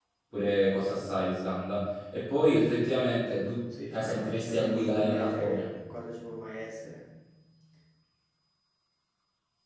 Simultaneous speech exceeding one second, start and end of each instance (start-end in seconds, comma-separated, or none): 3.9-5.7